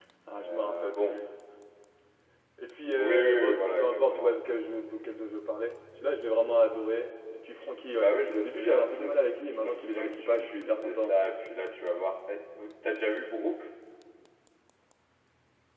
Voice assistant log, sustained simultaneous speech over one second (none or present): present